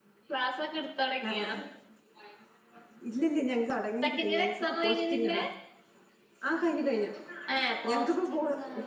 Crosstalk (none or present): present